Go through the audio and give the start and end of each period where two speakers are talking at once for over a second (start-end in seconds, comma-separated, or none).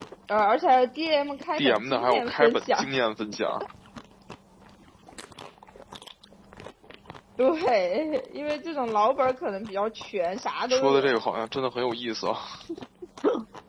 1.6-2.9